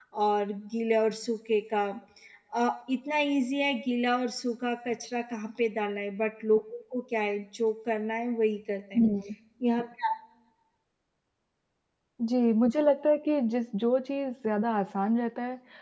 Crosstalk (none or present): none